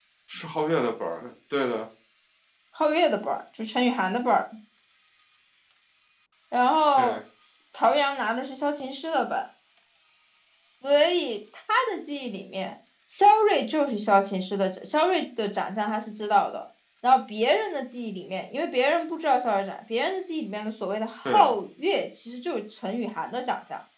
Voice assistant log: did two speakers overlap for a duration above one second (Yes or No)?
No